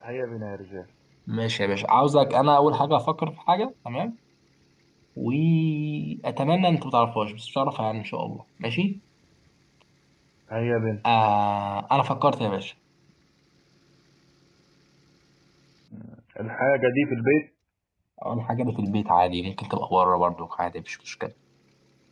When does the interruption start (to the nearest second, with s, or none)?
none